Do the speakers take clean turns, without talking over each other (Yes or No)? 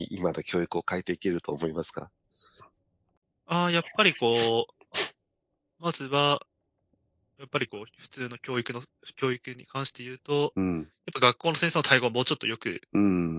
Yes